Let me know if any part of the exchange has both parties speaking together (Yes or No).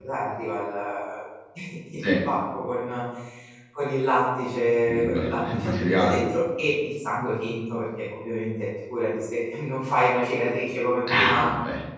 Yes